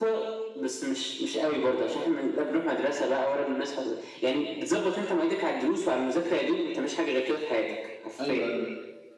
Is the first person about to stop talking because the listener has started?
Yes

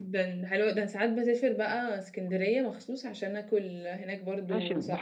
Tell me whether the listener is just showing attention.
No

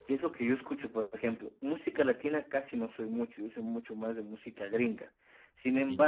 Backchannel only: Yes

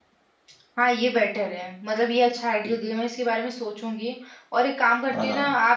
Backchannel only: Yes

